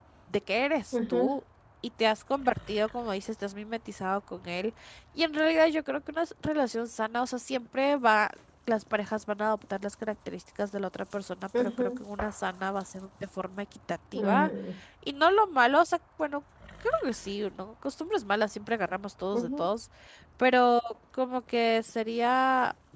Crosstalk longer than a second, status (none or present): none